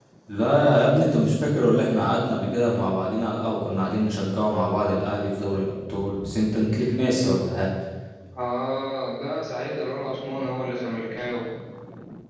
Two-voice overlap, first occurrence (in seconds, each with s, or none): none